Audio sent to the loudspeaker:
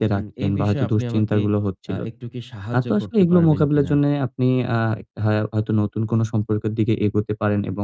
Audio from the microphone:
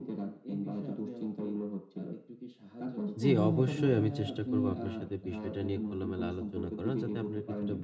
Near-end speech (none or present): present